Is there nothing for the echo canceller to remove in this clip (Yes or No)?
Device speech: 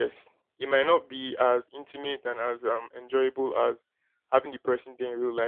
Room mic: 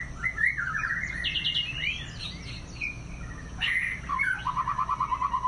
Yes